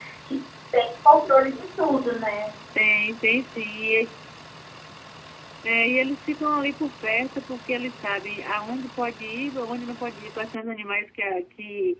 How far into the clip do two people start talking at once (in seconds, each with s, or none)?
none